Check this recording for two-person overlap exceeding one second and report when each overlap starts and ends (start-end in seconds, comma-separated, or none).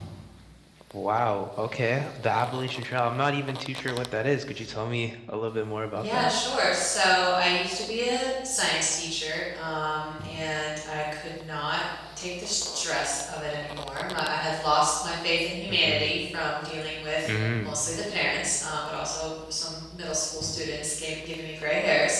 none